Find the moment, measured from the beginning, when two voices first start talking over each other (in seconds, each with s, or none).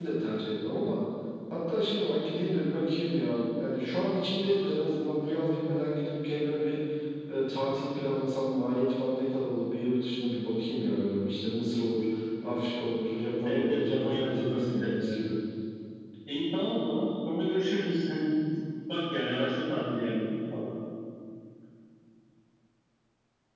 13.4 s